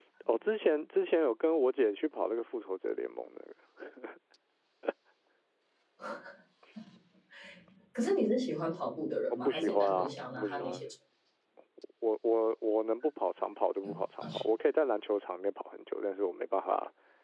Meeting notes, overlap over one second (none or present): present